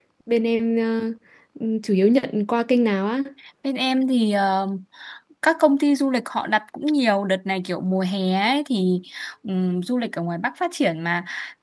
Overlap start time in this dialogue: none

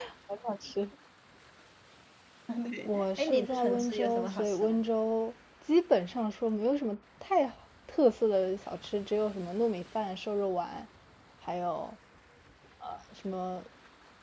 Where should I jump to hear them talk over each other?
2.8 s

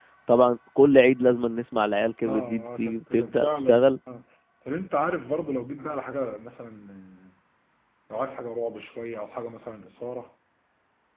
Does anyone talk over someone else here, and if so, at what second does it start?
2.2 s

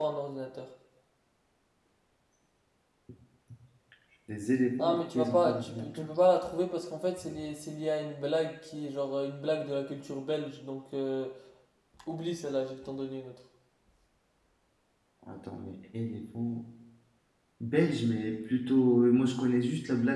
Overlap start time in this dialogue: 4.8 s

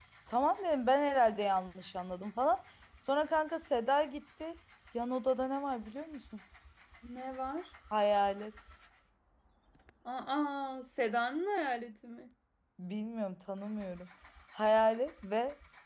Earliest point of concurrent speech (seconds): none

